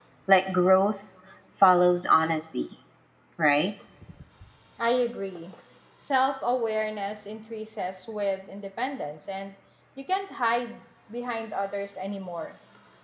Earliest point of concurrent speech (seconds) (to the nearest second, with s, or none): none